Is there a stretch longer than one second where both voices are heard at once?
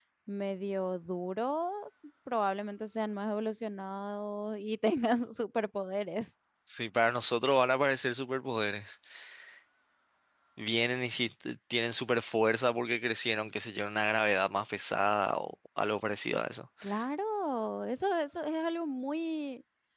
No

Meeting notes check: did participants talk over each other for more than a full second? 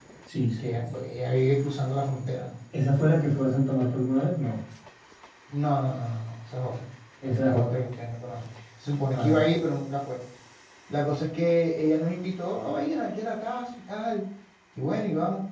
No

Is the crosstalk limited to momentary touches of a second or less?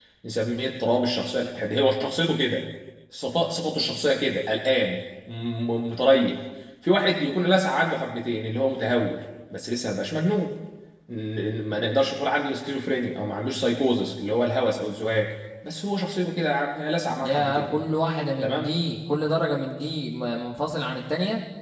Yes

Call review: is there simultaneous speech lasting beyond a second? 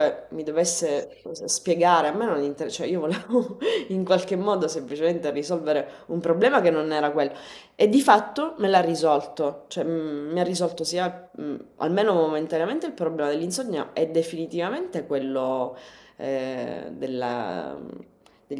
No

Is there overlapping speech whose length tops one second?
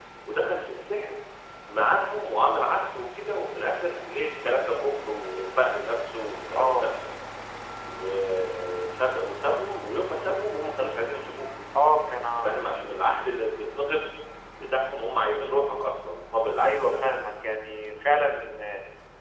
No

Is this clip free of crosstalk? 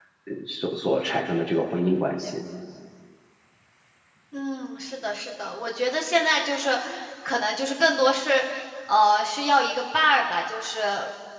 Yes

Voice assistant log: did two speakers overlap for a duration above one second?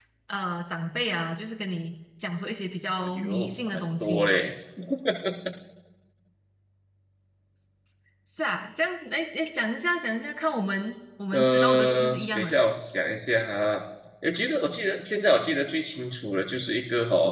Yes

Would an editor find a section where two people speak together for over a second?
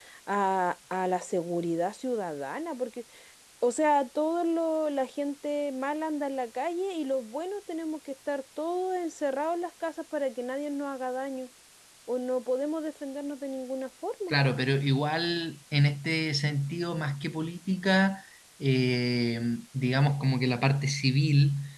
No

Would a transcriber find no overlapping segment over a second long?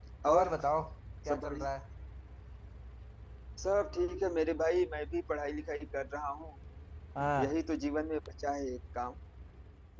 Yes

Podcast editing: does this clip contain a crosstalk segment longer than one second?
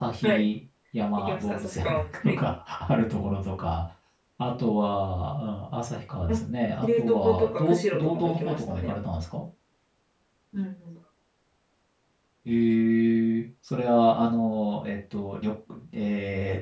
Yes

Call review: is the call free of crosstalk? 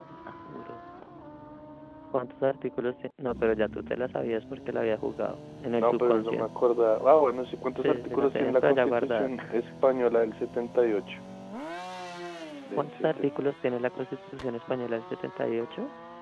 No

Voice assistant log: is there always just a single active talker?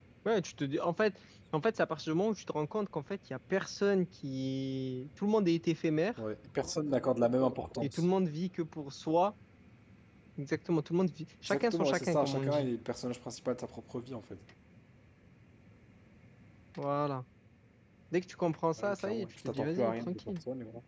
No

